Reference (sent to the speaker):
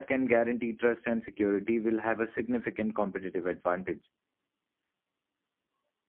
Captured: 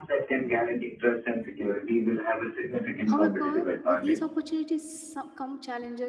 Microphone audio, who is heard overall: both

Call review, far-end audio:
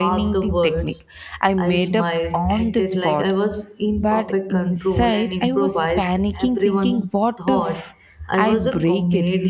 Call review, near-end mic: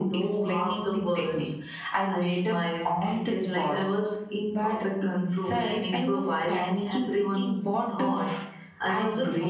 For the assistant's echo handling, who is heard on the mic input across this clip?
echo only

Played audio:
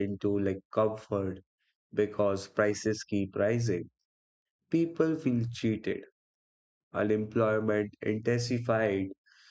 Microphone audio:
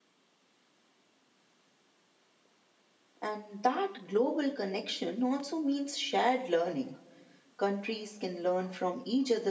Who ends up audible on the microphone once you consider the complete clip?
user only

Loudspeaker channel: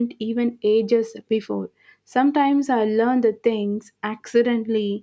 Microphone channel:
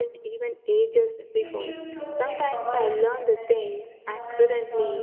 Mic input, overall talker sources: both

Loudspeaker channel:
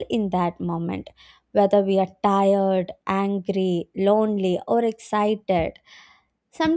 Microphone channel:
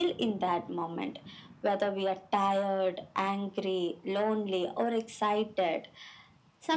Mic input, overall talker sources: echo only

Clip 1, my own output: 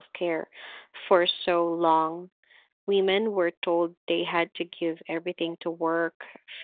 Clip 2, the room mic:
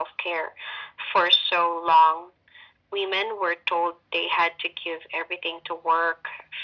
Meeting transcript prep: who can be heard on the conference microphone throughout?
echo only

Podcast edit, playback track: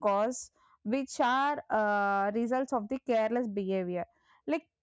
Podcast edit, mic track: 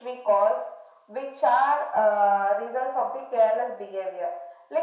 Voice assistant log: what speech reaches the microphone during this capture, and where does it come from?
echo only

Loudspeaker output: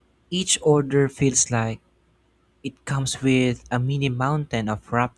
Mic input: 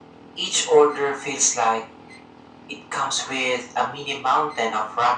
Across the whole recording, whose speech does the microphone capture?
echo only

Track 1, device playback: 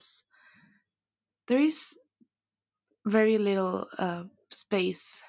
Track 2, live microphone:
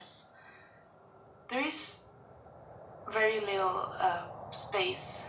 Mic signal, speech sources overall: echo only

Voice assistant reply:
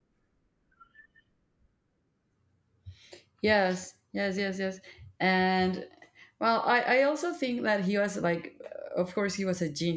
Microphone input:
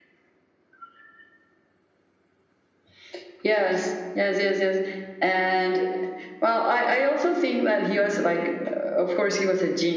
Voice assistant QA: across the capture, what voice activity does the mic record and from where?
echo only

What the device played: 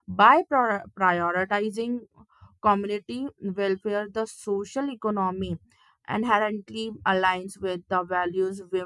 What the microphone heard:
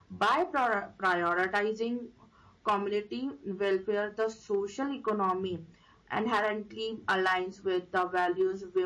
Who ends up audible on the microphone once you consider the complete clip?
echo only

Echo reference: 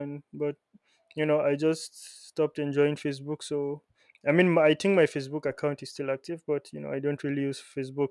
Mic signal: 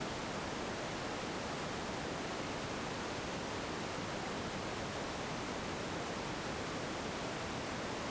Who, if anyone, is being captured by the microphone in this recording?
neither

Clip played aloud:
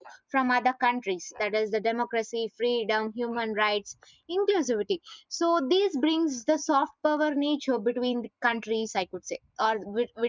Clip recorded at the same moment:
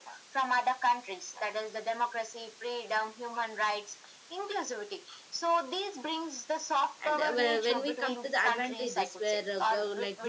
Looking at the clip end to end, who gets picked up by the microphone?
both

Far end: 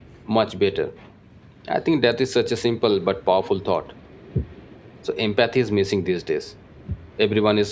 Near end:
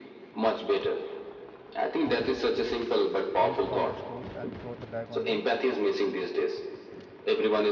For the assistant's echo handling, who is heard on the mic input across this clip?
both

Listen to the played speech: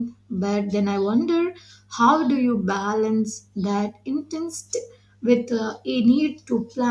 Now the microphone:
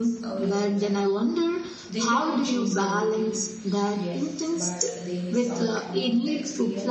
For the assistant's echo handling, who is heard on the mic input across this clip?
both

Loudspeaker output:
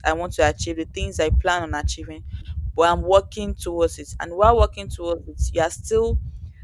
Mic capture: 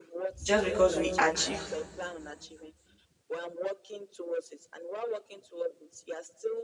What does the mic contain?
both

